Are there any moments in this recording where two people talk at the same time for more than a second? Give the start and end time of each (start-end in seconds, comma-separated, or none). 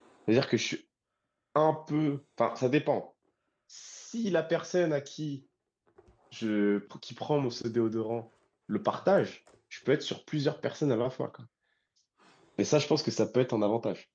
none